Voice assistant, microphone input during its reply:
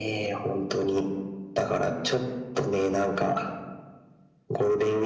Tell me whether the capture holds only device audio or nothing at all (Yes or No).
Yes